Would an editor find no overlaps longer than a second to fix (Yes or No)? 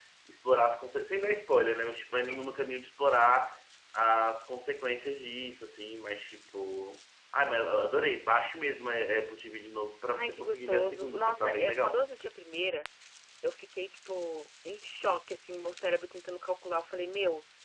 No